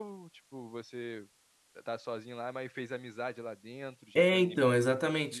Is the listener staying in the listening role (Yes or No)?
No